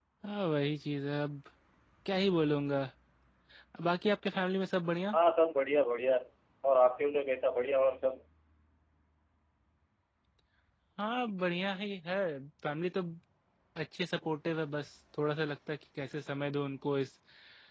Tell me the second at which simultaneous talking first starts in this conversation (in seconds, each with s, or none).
none